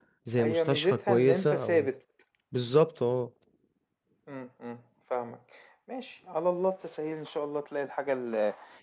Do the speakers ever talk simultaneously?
Yes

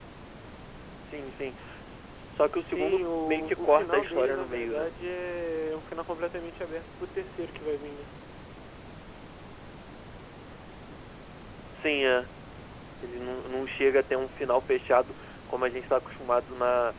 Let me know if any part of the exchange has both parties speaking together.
Yes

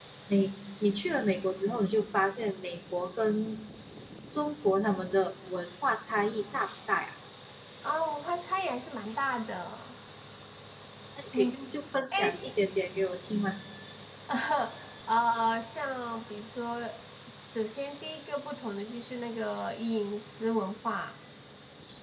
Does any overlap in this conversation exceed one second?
No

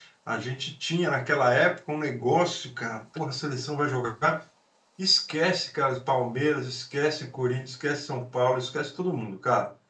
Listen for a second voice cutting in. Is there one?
No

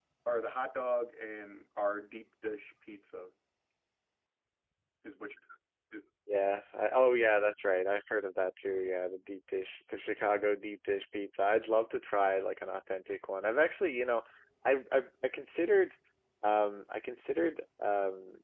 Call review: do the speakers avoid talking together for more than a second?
Yes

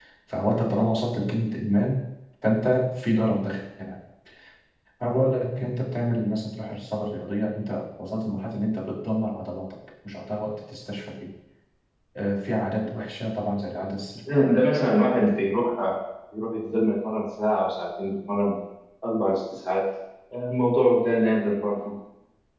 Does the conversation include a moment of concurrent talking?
No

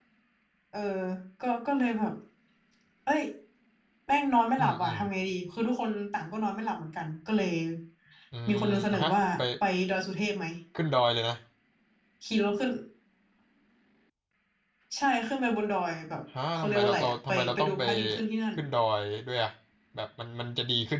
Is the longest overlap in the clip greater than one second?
Yes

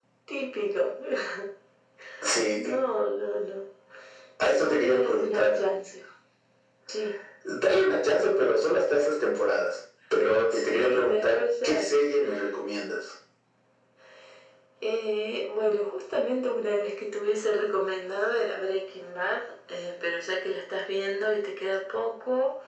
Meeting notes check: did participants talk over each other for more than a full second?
Yes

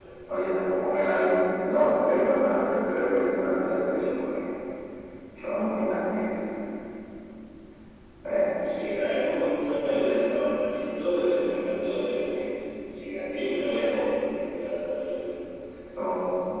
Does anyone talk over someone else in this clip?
No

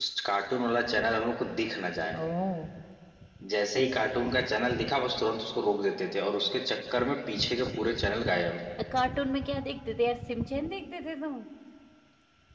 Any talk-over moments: No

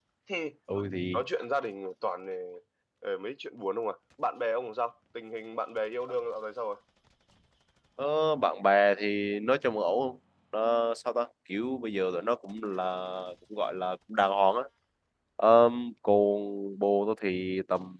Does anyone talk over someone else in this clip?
No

